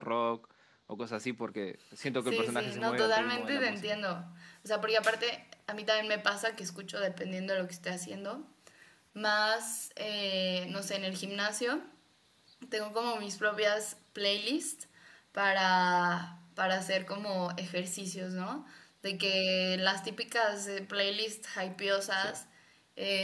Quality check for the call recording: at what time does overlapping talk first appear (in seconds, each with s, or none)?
2.2 s